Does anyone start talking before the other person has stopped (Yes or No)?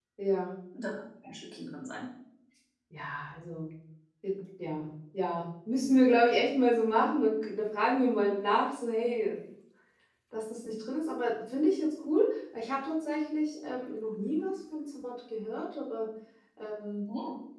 No